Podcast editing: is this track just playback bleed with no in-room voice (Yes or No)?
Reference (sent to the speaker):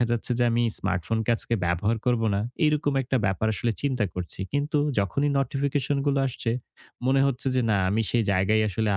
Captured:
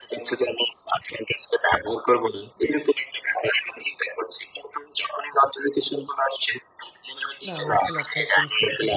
No